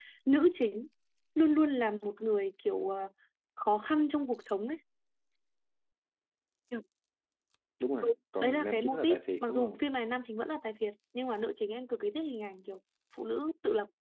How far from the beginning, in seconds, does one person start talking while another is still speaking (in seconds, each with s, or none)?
8.4 s